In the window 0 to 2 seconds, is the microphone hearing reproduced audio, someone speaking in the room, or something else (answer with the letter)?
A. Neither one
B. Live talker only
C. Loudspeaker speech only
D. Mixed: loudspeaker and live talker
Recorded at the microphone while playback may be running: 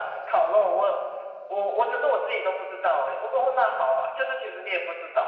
C